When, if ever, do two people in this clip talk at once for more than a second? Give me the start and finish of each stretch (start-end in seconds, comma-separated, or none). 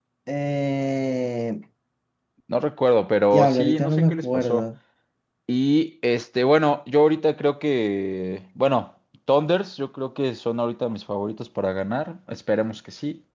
3.3-4.6